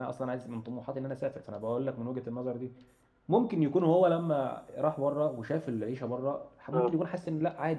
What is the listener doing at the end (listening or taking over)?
listening